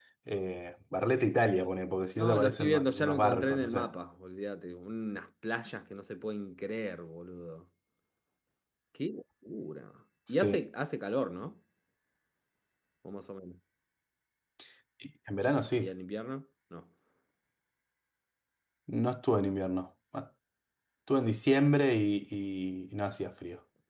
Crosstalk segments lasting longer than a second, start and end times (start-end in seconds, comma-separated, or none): 2.2-3.9